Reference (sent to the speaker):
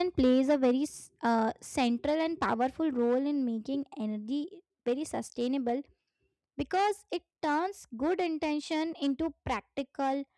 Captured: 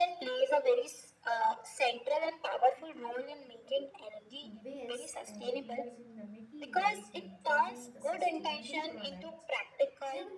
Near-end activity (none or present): present